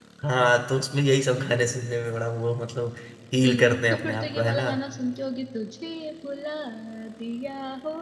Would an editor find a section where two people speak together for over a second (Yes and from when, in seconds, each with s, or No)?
Yes, from 3.5 s